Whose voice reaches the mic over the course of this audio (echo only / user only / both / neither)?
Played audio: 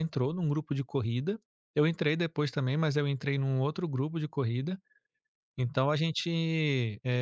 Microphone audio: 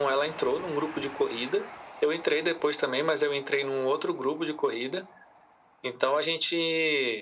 echo only